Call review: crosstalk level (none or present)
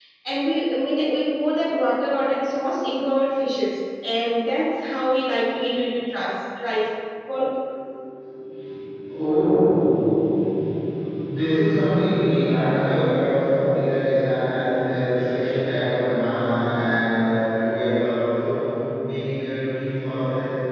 none